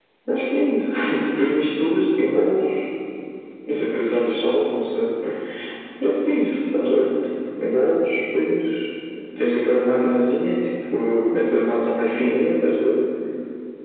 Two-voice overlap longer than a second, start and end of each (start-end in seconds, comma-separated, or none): none